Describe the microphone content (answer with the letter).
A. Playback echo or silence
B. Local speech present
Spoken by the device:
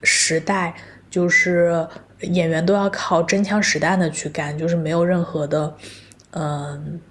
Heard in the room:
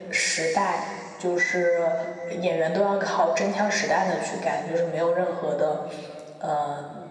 A